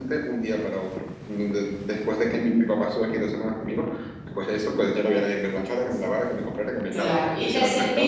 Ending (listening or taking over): taking over